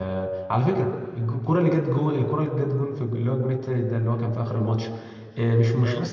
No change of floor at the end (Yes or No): Yes